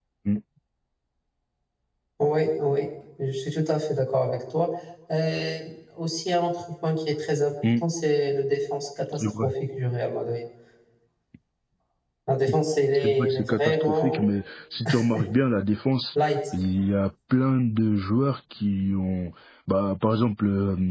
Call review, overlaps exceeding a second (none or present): present